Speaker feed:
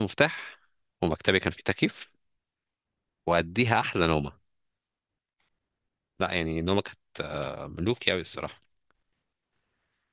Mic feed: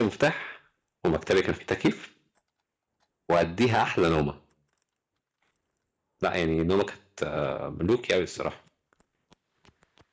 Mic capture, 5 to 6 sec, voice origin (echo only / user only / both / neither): neither